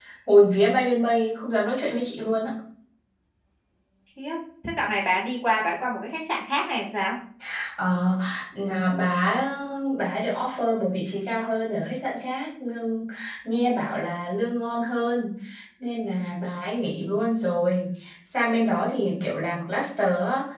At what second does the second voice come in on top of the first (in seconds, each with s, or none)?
none